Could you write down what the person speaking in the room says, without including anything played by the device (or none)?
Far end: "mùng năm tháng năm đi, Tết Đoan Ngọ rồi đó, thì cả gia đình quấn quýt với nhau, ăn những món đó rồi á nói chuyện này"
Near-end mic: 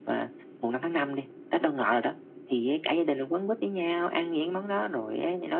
none